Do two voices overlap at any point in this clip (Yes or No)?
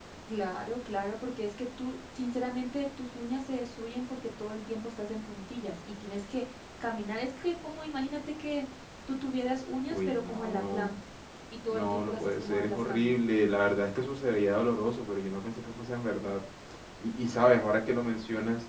Yes